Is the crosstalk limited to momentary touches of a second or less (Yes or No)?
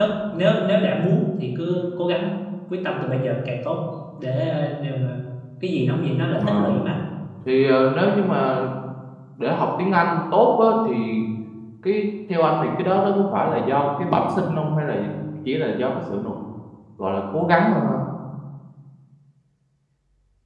Yes